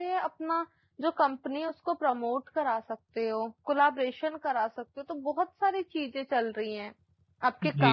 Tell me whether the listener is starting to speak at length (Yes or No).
No